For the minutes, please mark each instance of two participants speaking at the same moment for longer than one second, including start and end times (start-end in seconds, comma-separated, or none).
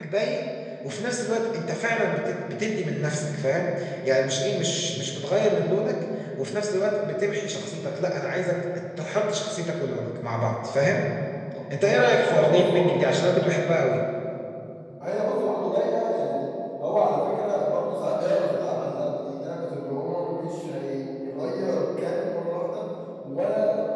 11.8-13.0